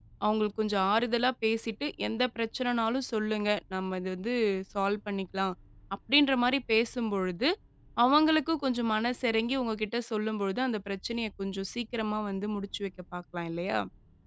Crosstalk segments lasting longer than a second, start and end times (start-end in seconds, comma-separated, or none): none